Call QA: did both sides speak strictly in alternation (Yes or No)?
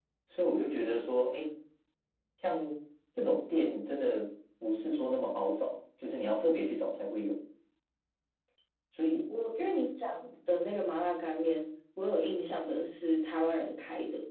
Yes